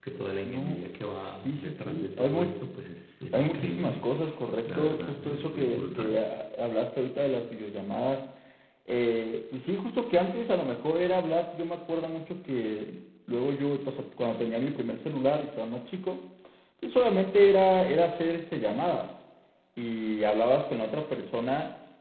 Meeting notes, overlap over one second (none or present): present